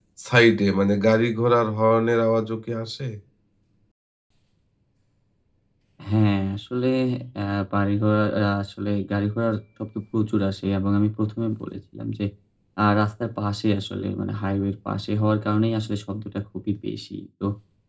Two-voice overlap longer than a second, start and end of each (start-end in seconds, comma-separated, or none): none